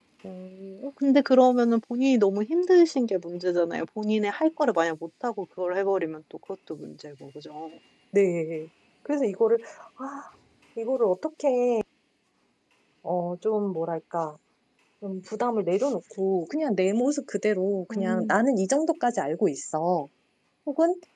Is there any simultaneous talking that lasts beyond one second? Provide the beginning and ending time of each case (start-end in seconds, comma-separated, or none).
none